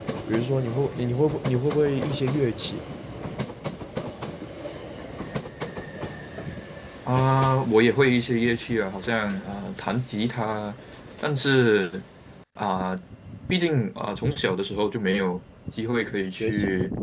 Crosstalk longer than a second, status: none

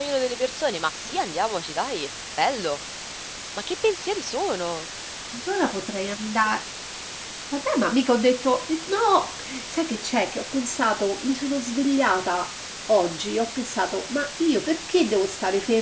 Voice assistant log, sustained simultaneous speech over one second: none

